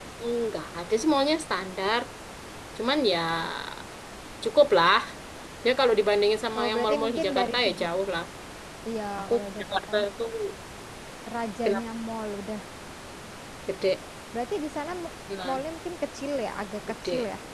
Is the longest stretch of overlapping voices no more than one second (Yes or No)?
No